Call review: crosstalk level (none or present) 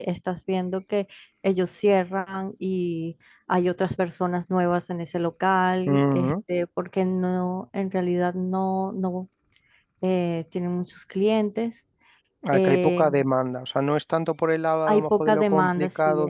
present